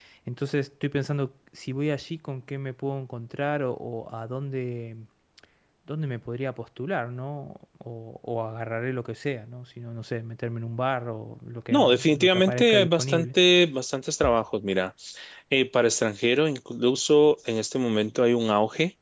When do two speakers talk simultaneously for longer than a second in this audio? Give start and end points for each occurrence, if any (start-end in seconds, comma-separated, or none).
11.7-13.3